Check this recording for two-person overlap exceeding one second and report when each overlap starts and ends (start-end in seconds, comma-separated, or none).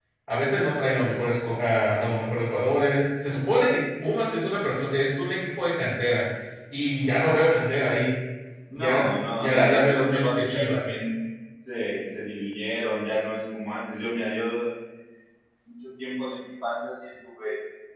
8.8-10.8